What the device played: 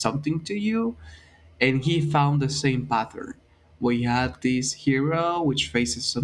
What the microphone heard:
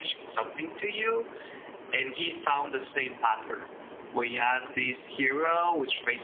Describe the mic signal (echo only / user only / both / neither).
echo only